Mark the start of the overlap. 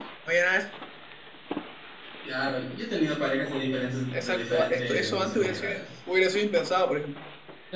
4.1 s

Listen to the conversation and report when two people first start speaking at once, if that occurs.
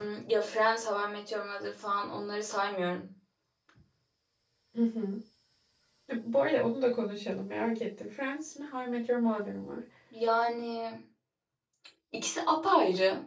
none

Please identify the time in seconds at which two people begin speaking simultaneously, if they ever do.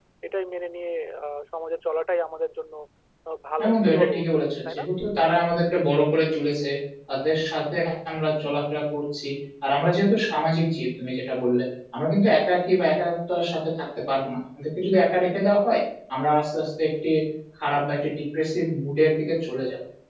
3.6 s

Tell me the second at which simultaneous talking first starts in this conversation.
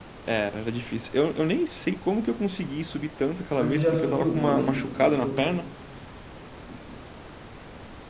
3.6 s

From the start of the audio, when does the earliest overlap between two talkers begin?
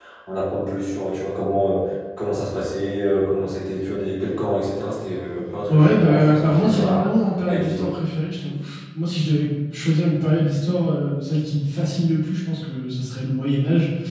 5.7 s

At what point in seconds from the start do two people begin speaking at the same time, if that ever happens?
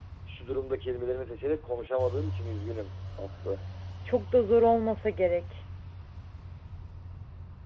none

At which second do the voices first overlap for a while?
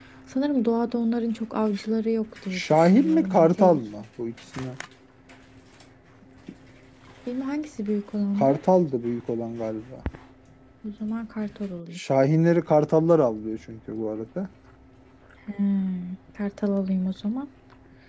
2.5 s

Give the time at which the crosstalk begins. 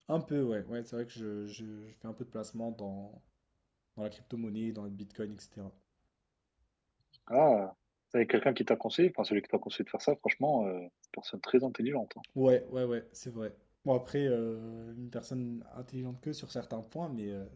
none

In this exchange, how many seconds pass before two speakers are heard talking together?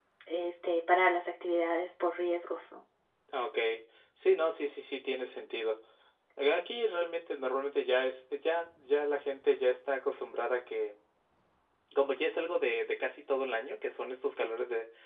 none

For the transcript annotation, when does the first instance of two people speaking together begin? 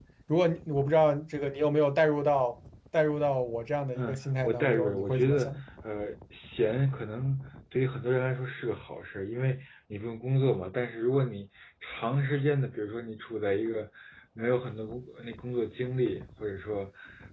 4.0 s

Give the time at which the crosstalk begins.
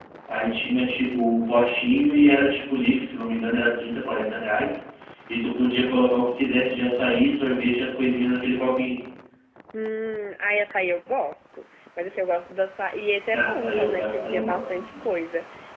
13.3 s

